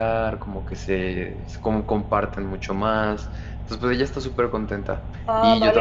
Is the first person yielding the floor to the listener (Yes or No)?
Yes